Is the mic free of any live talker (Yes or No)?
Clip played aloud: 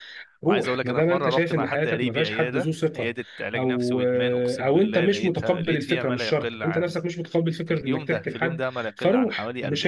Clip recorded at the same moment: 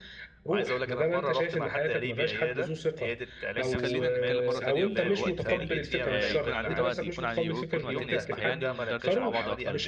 No